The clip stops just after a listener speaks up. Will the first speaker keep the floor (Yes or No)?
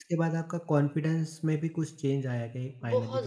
No